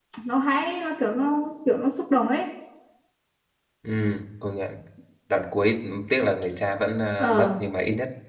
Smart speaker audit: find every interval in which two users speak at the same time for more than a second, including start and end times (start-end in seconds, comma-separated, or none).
none